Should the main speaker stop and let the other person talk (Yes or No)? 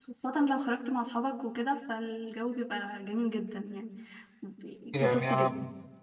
Yes